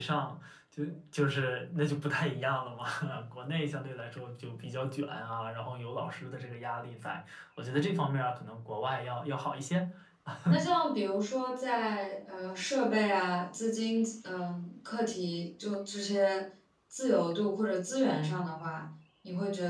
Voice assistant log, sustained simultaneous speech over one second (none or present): none